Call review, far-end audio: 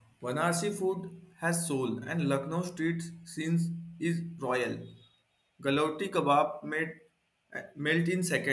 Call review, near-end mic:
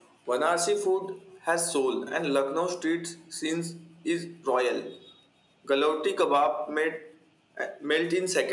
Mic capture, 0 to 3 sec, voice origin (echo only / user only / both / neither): echo only